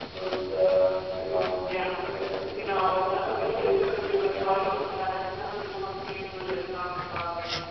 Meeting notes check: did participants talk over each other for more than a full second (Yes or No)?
Yes